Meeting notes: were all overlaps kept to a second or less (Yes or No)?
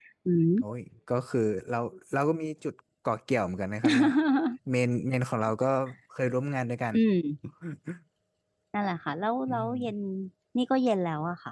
Yes